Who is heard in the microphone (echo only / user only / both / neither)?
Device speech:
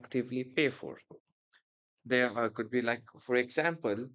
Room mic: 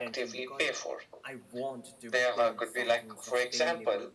both